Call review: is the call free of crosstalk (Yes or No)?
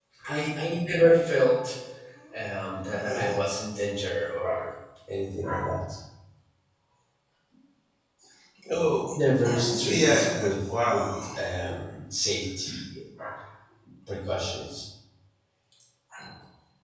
No